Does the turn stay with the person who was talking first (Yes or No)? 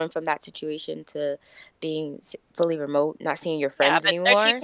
No